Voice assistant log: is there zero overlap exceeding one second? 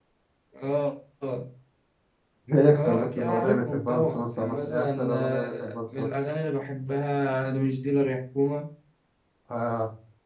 No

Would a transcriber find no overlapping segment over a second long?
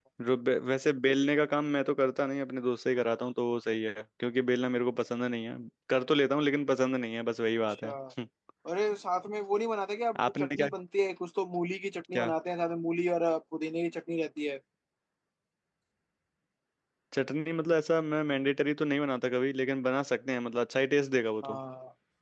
Yes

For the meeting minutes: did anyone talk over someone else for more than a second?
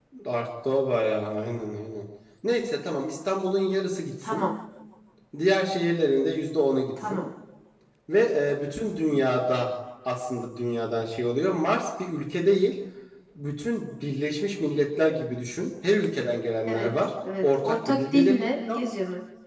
Yes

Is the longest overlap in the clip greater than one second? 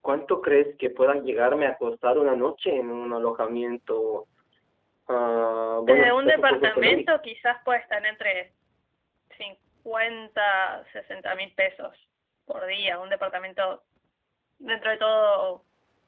Yes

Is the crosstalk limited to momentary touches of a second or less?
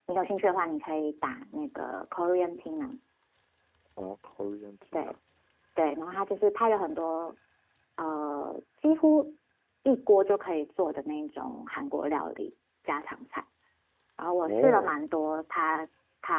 Yes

